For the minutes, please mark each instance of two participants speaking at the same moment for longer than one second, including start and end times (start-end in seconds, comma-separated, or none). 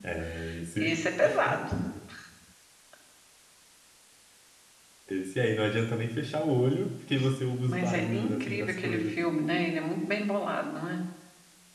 7.7-9.2